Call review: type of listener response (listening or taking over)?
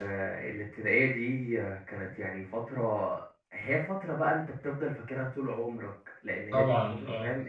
listening